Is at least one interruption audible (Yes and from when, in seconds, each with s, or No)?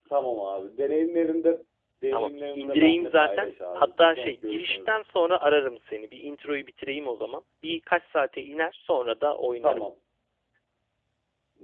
Yes, from 2.1 s